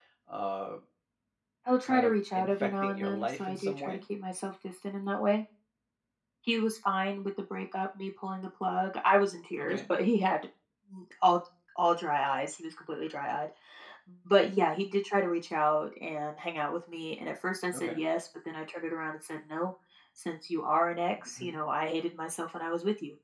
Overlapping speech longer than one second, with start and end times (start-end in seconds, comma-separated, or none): 1.8-4.0